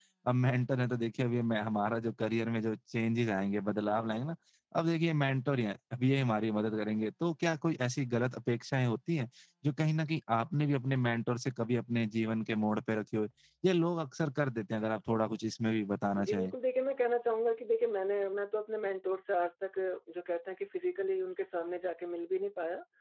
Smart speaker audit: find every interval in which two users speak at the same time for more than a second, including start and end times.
none

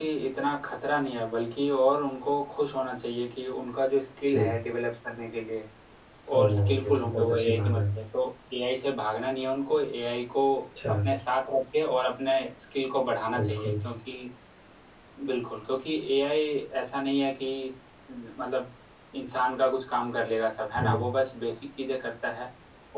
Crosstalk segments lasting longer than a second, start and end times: 6.4-7.8

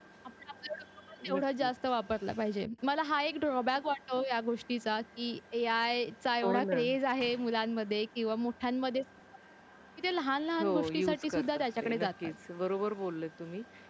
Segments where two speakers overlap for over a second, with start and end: 10.6-12.3

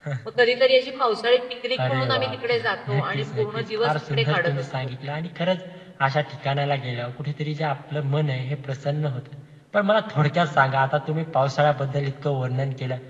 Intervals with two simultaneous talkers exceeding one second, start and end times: 1.9-4.7

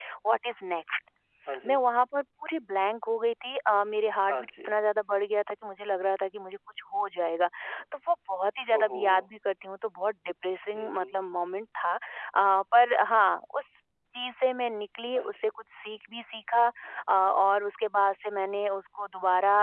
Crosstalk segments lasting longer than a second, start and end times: none

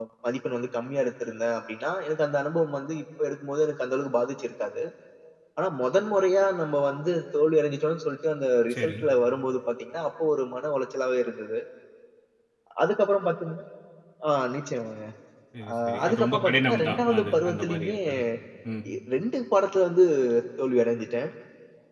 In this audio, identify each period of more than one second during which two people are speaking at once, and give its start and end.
15.7-18.0

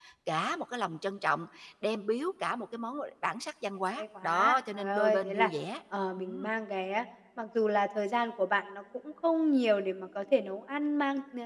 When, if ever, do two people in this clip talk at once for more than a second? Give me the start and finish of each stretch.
4.0-5.5

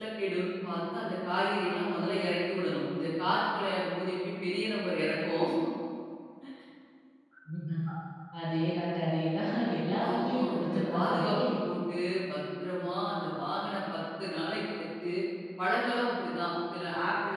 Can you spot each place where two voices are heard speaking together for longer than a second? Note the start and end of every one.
10.1-11.4

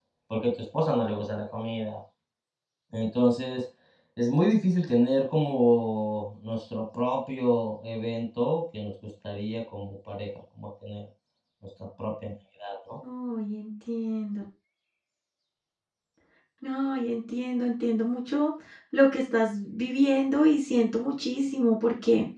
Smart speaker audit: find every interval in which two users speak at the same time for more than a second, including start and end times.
none

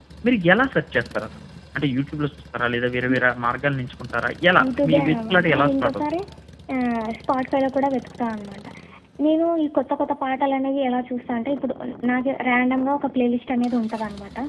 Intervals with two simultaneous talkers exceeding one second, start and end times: 4.6-6.0

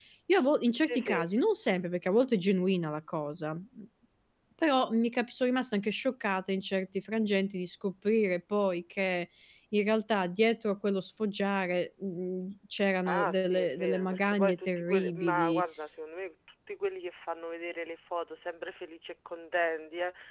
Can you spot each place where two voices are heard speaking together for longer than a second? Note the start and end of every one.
13.1-15.6

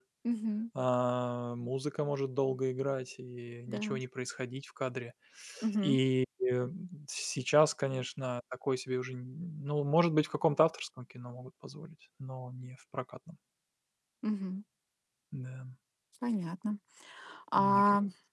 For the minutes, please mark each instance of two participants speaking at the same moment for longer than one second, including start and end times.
none

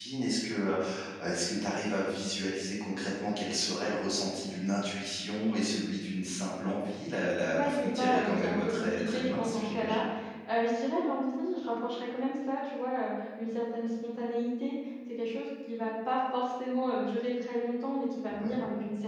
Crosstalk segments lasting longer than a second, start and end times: 7.5-10.0

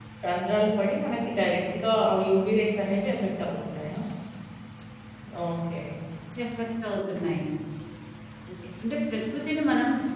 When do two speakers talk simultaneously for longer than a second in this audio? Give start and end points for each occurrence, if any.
none

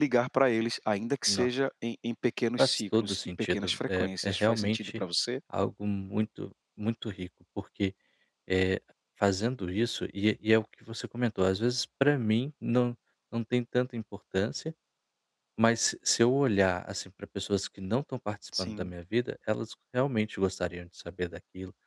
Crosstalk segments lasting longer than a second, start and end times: 2.6-5.0

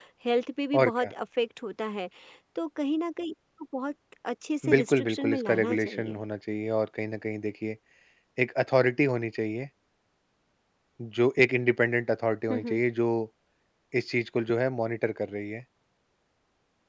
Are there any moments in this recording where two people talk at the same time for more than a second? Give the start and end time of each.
4.7-6.2

